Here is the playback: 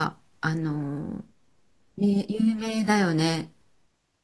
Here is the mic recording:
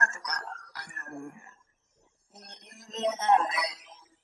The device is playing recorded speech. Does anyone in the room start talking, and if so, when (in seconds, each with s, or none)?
none